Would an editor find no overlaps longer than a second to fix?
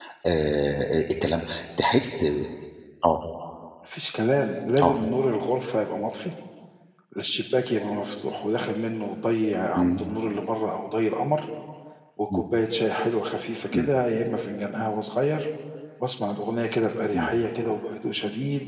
Yes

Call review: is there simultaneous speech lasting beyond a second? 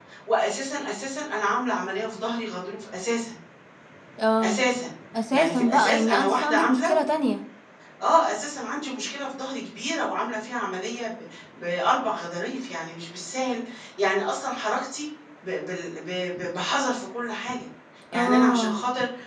Yes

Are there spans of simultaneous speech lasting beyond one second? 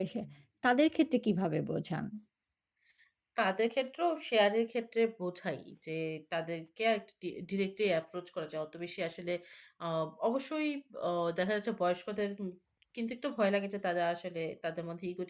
No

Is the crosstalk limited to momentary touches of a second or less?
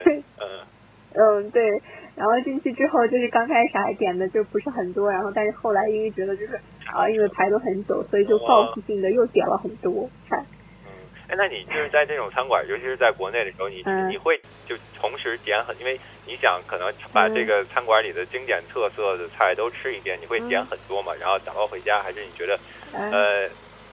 Yes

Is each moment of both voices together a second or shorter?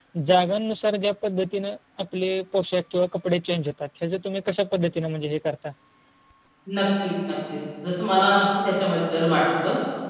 Yes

